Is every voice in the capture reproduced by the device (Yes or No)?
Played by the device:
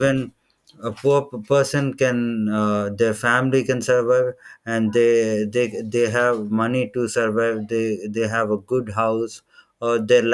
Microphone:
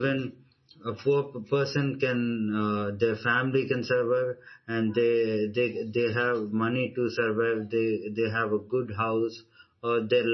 Yes